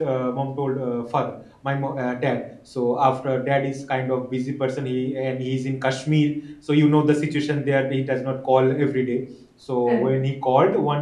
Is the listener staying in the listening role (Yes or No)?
Yes